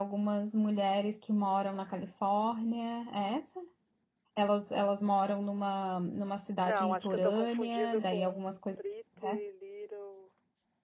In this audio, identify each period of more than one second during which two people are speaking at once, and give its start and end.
6.6-8.8

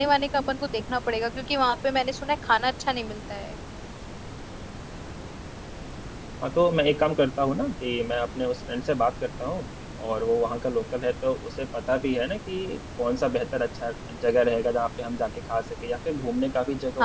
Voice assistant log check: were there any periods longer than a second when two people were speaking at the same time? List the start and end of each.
none

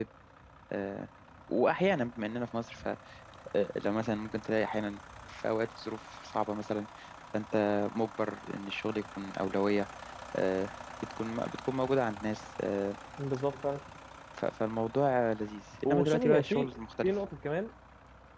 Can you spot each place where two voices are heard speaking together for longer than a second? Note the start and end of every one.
15.8-17.1

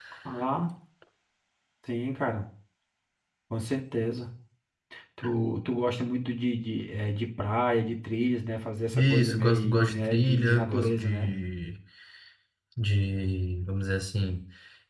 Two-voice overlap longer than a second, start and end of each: 8.9-11.3

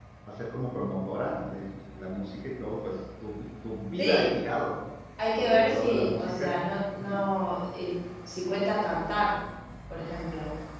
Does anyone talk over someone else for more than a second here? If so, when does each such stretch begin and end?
5.3-6.6

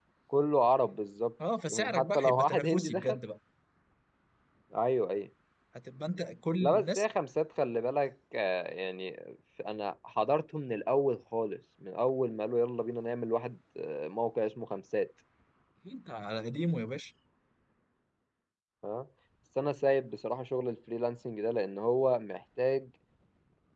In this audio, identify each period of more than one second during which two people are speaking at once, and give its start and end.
1.7-3.2

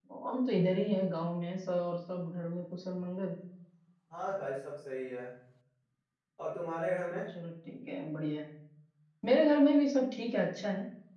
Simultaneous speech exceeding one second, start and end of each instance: none

